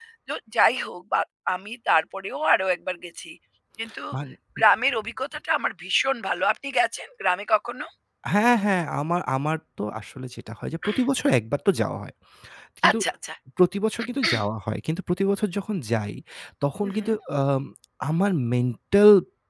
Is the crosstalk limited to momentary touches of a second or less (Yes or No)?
Yes